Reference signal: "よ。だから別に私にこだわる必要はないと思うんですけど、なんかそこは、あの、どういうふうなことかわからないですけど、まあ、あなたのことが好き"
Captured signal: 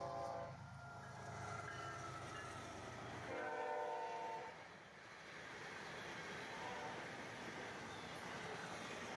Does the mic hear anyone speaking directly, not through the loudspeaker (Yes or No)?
No